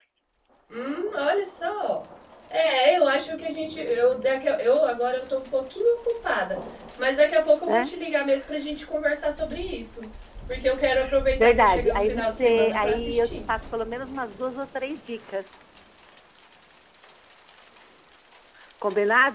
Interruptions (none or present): present